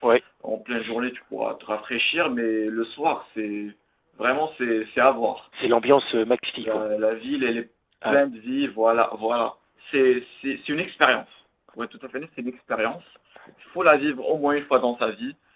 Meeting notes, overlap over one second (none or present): none